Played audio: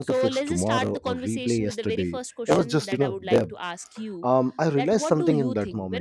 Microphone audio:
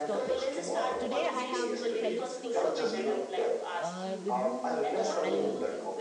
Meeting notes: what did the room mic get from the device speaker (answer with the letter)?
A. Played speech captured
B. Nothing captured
A